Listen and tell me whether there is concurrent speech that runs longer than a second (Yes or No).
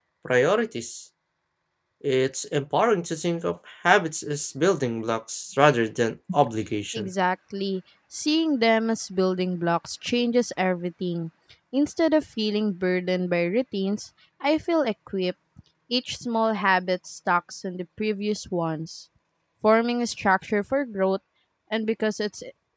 No